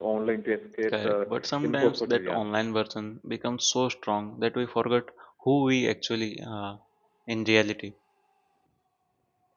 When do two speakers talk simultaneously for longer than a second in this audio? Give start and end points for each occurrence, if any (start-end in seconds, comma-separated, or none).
0.9-2.5